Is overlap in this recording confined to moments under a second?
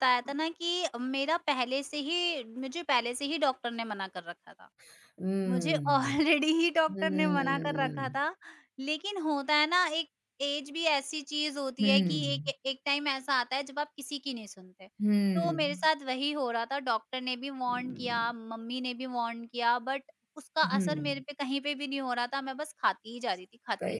No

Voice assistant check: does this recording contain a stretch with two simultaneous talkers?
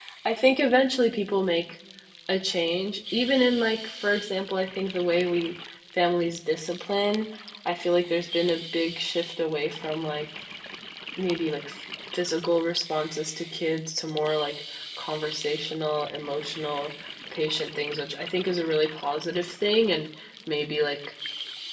No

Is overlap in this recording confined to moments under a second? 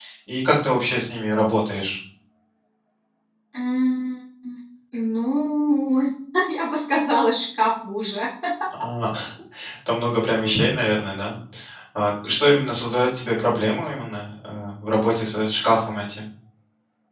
Yes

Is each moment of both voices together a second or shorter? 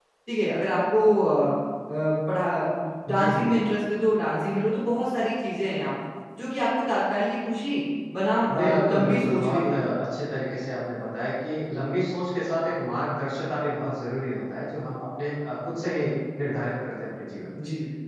No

